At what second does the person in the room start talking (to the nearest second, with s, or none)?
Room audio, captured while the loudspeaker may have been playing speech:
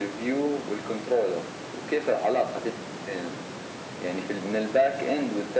none